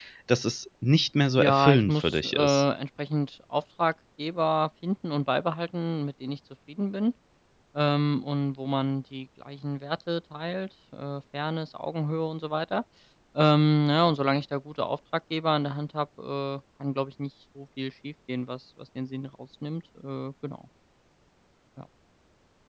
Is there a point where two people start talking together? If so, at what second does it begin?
1.4 s

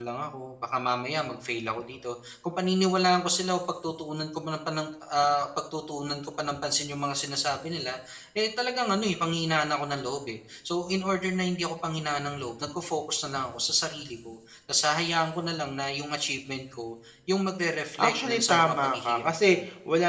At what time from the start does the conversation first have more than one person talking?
18.0 s

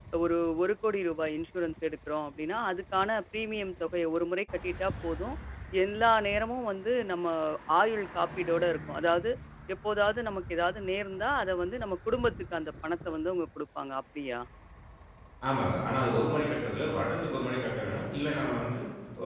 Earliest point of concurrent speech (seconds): none

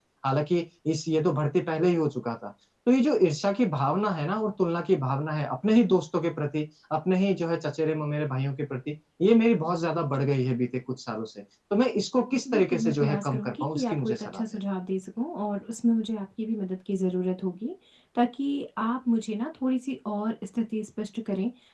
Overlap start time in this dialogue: 12.4 s

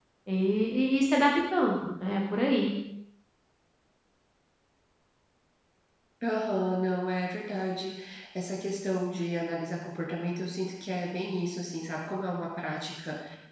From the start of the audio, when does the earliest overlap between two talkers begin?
none

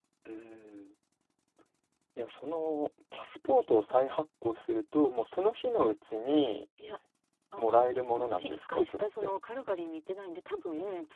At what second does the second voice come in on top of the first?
7.6 s

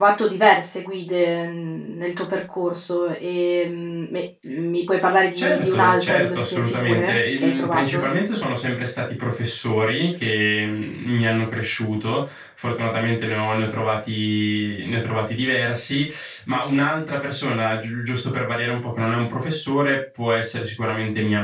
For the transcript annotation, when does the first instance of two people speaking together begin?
5.3 s

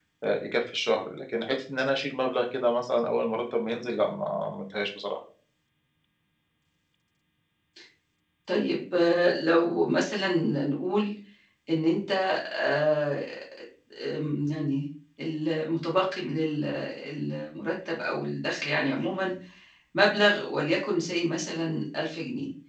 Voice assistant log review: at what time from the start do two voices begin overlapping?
none

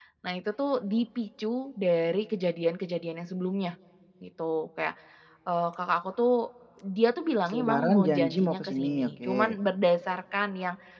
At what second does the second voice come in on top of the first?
7.4 s

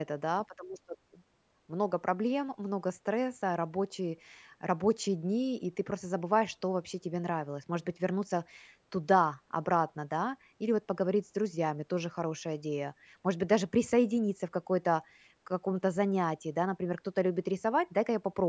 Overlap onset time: none

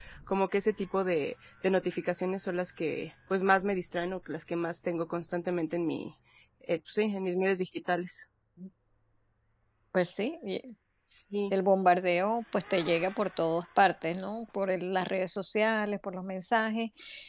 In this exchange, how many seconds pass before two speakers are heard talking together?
none

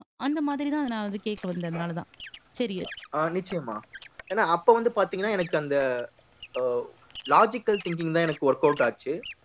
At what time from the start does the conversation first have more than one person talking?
none

